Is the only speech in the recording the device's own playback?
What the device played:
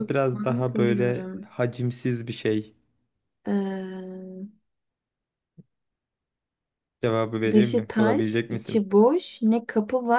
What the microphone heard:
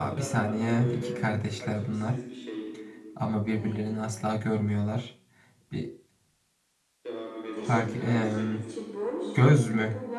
No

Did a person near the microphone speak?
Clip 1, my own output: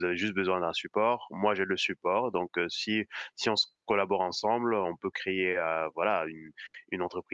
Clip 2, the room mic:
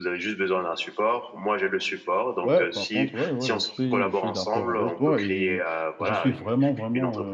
Yes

